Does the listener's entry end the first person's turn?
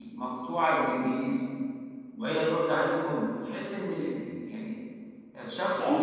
No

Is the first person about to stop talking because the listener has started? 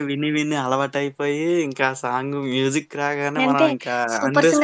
Yes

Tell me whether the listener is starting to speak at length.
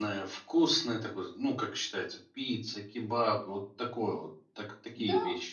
Yes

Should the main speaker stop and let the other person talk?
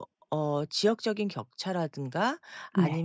No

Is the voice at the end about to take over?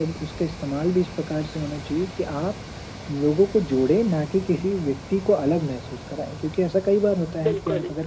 No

